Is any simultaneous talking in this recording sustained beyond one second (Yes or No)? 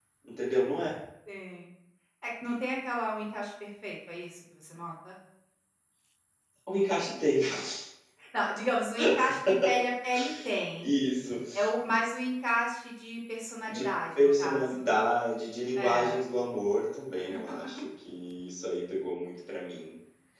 Yes